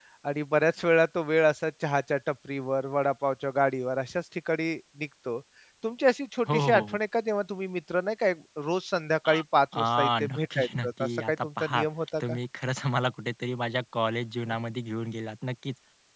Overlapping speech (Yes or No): Yes